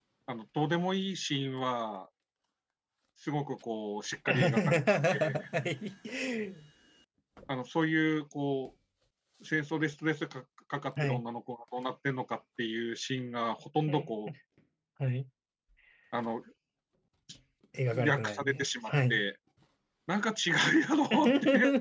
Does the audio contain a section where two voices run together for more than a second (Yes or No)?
Yes